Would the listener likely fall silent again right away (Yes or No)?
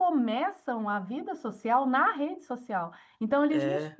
Yes